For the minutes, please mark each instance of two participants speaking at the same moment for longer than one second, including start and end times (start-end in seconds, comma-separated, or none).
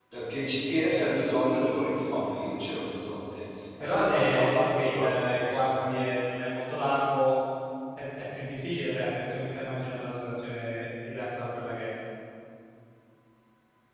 3.8-5.7